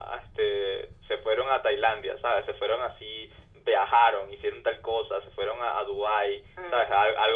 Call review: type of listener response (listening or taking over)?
listening